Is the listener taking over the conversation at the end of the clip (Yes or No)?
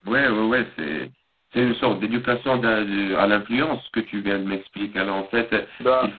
No